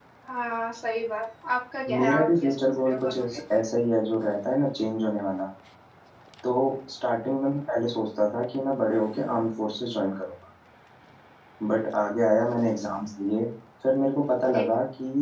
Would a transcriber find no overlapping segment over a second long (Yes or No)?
No